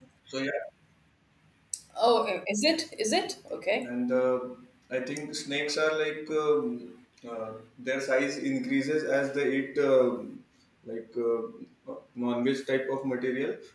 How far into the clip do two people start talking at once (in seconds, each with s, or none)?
none